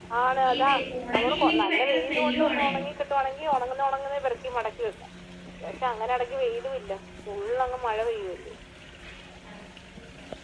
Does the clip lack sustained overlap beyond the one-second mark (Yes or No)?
No